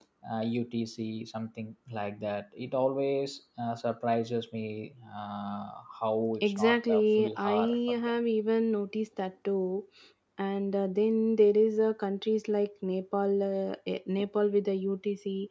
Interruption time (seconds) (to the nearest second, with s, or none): 6 s